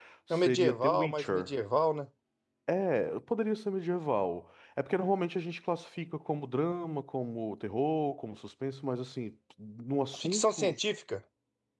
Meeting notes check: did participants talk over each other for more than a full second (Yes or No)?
Yes